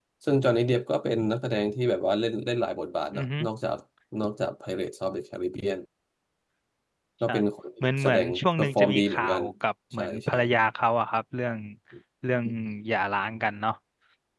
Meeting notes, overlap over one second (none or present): present